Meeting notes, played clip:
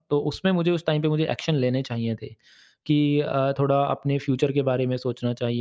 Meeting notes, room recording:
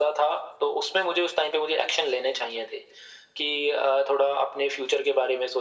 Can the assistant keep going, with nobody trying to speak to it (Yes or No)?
Yes